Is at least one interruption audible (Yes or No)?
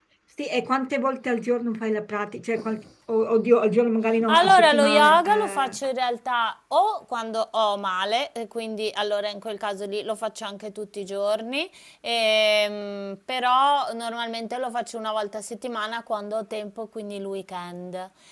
Yes